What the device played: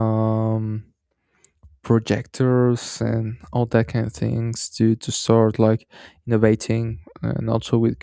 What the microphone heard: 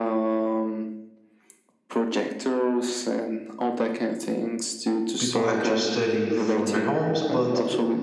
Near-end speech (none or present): present